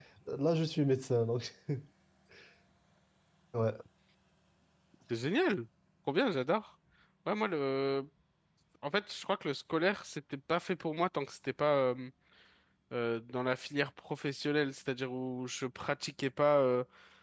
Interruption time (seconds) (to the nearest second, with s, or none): none